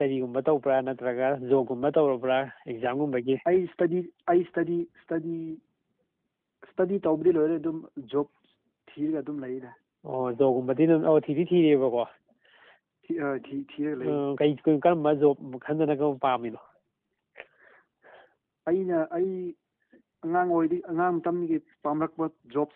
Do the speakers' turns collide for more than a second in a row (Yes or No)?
No